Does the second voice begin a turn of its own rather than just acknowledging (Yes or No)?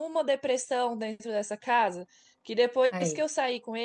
No